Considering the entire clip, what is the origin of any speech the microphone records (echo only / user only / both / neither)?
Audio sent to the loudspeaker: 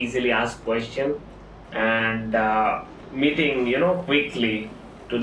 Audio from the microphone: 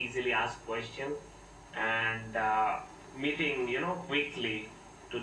echo only